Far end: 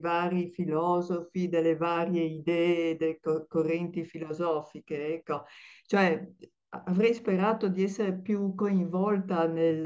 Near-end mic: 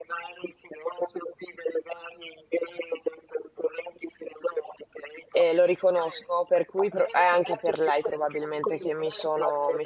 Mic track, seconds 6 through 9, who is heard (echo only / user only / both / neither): both